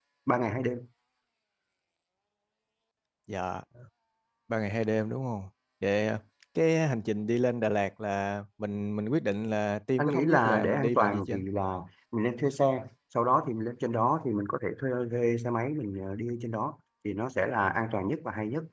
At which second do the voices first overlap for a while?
10 s

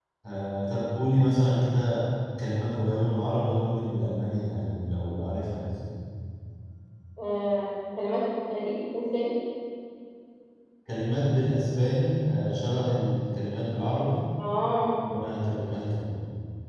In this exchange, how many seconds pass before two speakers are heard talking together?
none

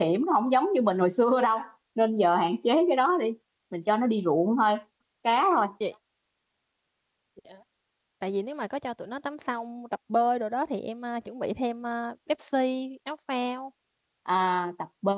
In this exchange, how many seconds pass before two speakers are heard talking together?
none

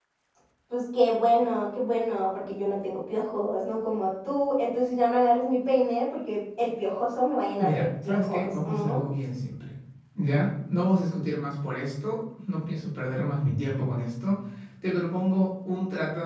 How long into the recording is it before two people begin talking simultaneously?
8 s

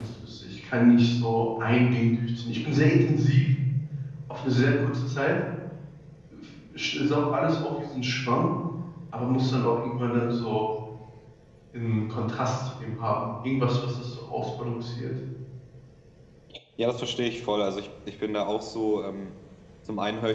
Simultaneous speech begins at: none

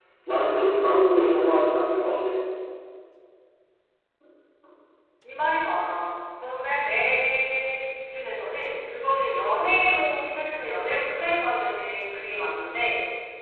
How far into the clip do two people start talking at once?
none

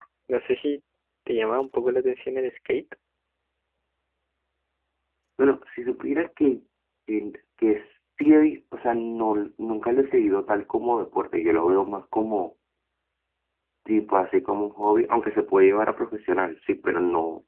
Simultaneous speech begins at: none

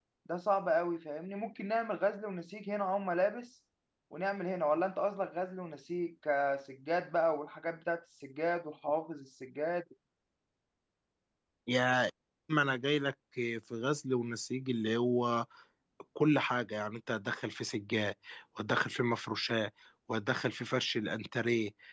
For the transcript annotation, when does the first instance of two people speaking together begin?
none

